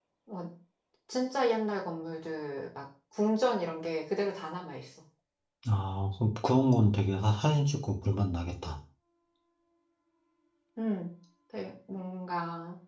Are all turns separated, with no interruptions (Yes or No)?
Yes